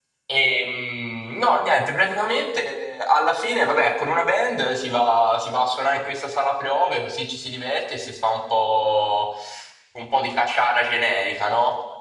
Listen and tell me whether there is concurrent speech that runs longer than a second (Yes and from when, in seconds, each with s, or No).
No